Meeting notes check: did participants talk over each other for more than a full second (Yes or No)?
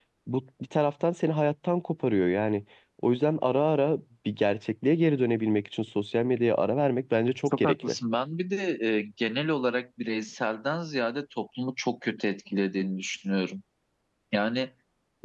No